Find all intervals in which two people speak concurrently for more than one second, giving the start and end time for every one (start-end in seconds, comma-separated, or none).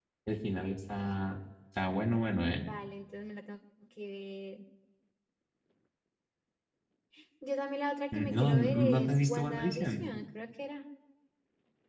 8.1-10.1